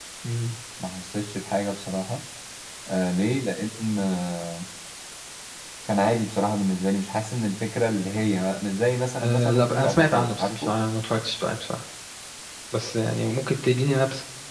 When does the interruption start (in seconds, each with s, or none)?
9.2 s